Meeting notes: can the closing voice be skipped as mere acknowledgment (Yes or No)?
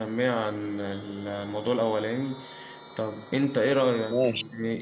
Yes